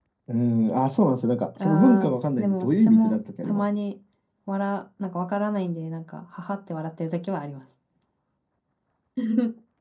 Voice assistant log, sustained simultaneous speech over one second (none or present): present